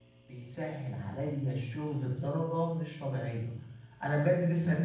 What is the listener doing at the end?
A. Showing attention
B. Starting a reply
A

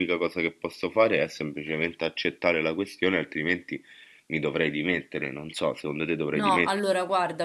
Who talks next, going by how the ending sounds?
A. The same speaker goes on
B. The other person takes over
B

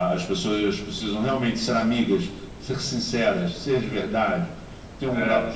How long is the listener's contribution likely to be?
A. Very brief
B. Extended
A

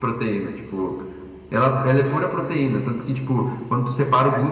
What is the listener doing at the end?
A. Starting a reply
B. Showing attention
B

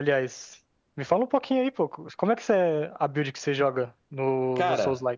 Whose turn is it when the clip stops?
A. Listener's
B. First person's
A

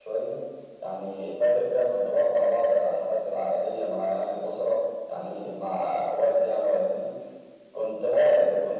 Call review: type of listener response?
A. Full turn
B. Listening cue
B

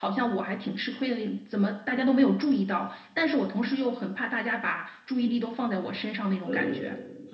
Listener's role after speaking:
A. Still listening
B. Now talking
B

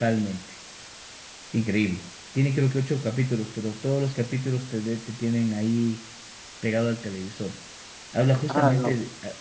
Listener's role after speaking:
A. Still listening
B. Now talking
A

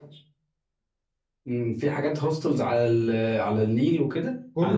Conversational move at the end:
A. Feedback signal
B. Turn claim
B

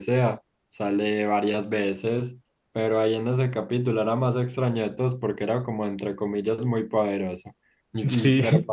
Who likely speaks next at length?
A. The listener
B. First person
B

